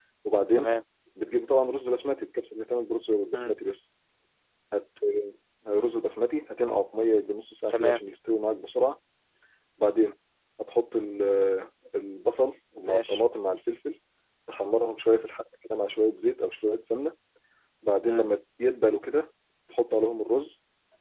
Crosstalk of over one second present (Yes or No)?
No